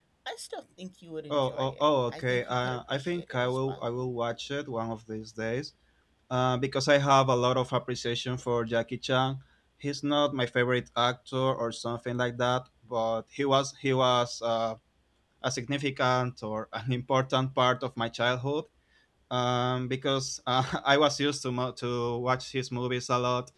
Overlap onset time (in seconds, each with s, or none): 1.3 s